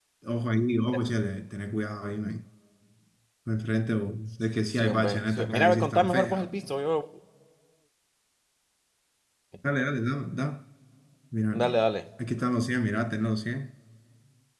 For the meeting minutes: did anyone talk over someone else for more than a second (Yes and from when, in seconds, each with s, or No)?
Yes, from 4.7 s